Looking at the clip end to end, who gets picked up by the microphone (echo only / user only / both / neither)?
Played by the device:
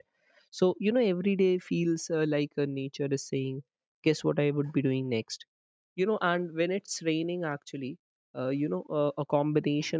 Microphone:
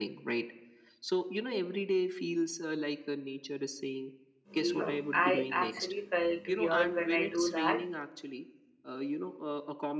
both